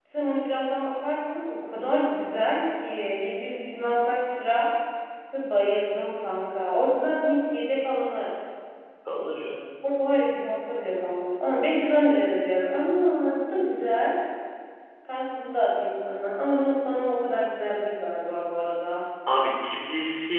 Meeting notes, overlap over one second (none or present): none